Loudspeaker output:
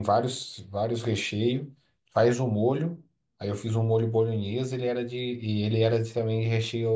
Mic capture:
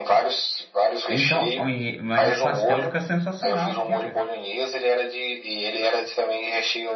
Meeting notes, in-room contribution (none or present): present